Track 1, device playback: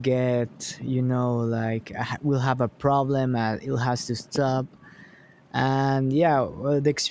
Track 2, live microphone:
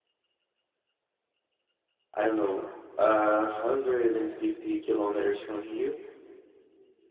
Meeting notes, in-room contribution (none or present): present